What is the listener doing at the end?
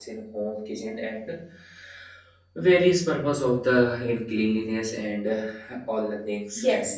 taking over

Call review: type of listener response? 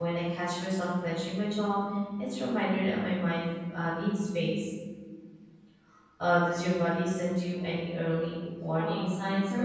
taking over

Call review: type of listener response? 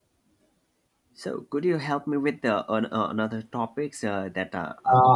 taking over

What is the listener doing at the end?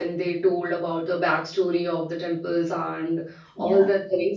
listening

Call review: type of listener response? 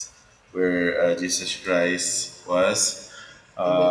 listening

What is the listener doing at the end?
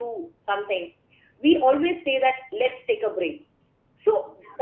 listening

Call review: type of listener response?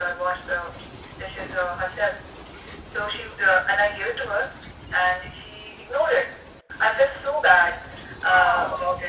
listening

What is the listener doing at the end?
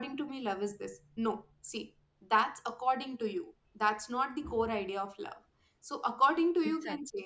listening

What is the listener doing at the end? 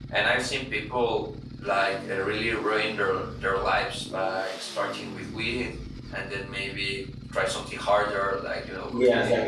taking over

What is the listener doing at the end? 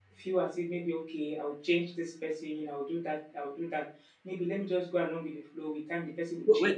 taking over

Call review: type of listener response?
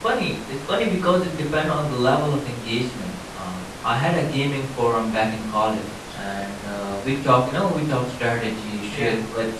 listening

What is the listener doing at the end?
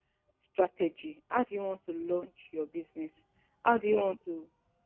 listening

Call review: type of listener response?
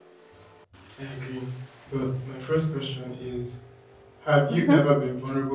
listening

